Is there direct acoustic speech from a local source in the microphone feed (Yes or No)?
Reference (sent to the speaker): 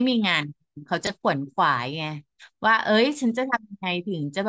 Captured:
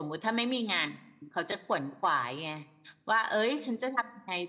No